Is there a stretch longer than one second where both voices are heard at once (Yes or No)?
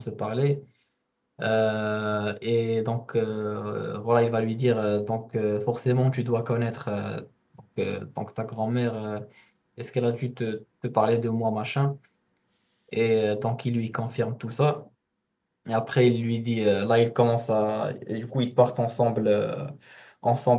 No